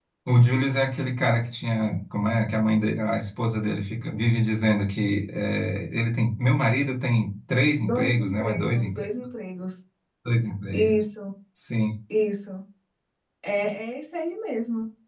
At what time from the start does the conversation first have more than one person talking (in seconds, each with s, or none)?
7.8 s